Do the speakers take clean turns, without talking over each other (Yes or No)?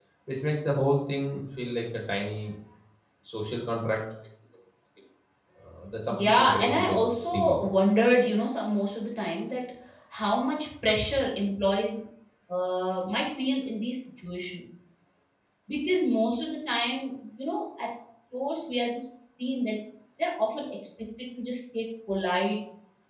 No